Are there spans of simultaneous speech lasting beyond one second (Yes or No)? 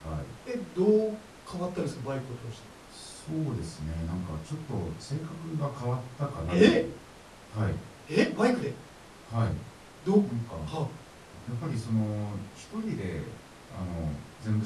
No